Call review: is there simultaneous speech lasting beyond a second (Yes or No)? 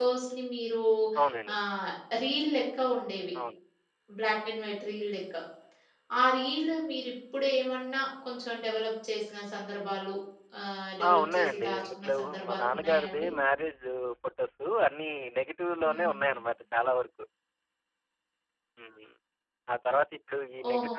Yes